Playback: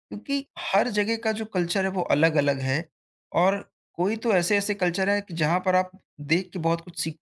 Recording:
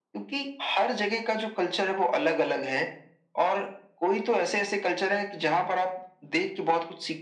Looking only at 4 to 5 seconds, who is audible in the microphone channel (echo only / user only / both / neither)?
echo only